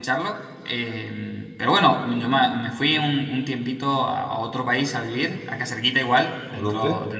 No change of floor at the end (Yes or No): Yes